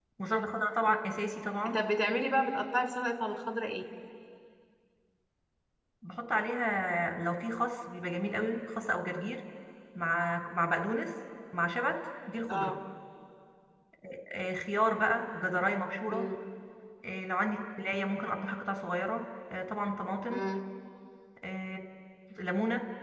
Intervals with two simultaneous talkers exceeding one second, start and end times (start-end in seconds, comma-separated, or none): none